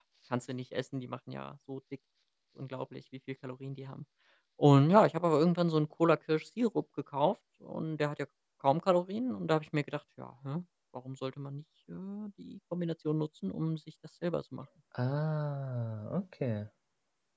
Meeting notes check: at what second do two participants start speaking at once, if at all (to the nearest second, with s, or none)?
none